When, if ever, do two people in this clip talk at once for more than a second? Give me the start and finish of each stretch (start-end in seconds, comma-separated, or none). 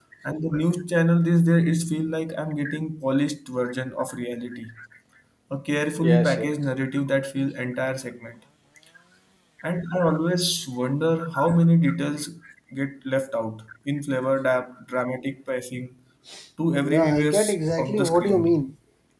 16.8-18.6